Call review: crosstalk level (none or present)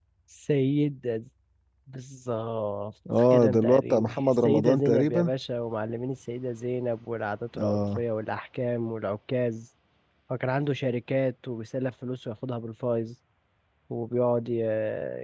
present